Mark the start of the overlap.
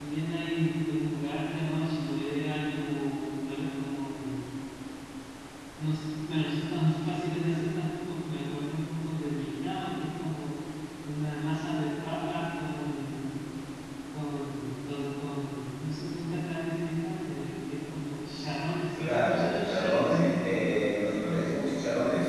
19.0 s

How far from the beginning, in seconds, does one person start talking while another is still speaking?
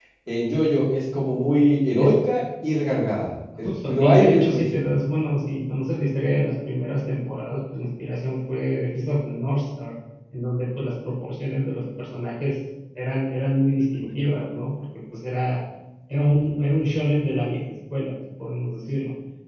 3.6 s

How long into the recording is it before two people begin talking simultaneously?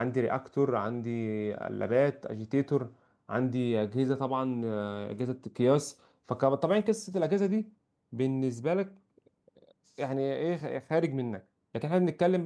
none

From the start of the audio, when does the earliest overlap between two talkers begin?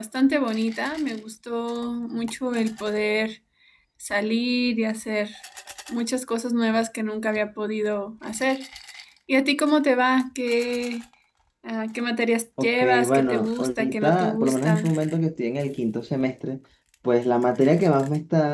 12.6 s

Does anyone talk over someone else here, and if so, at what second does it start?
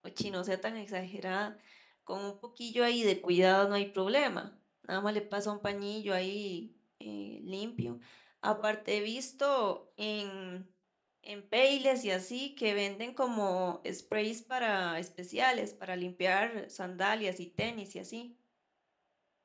none

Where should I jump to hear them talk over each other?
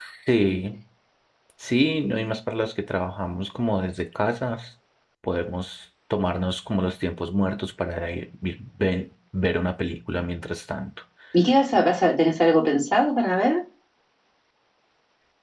none

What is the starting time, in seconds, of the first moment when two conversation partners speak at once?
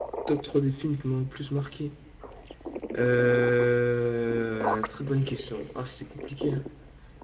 none

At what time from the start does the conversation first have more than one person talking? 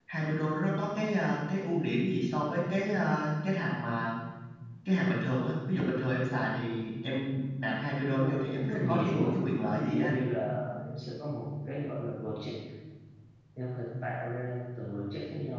8.2 s

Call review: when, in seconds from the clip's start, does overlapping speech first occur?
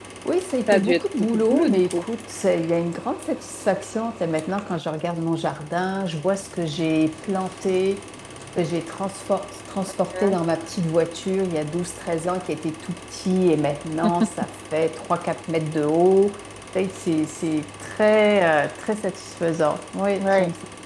0.7 s

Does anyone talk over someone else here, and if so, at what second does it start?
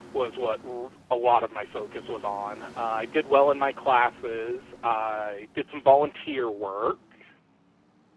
none

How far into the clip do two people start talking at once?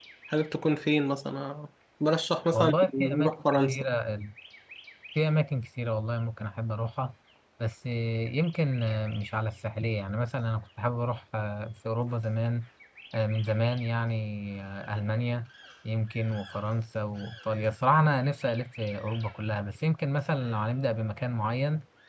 2.5 s

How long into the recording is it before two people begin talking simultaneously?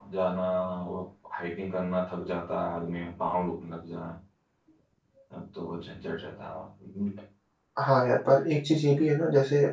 none

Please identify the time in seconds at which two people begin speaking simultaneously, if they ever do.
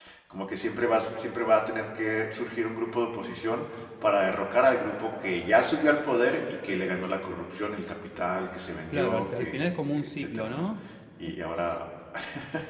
8.9 s

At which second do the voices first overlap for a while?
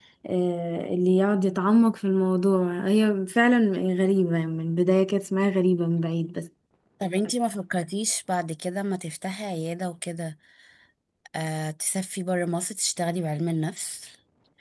none

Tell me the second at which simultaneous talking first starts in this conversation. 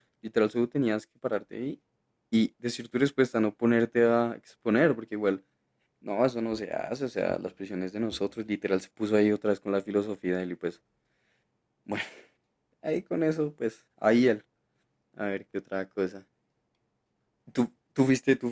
none

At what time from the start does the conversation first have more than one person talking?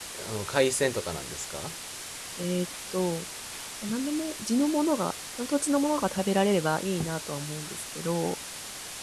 none

